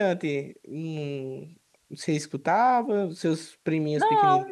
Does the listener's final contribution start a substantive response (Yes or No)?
Yes